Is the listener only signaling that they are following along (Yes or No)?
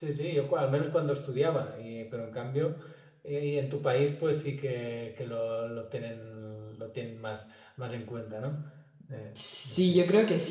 No